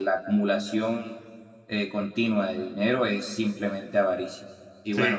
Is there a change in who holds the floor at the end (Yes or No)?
No